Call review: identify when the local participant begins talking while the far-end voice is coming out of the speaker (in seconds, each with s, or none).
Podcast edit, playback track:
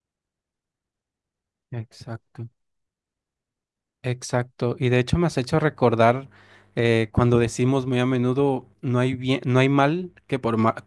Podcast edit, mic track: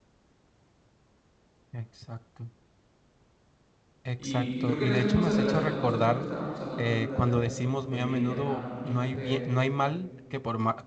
4.2 s